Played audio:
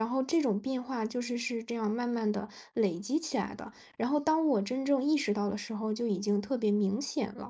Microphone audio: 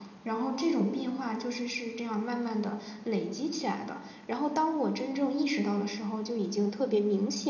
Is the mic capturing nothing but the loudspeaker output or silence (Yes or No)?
Yes